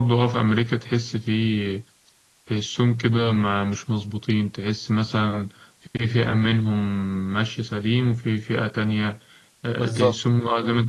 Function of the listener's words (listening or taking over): listening